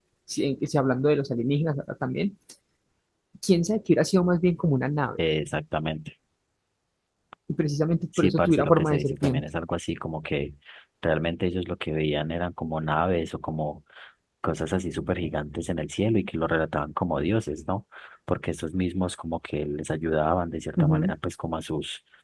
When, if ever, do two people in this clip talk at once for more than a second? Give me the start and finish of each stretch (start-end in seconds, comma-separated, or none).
8.2-9.4